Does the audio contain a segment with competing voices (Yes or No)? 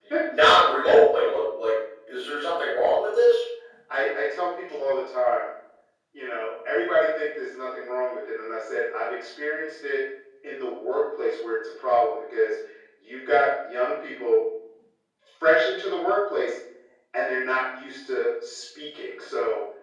No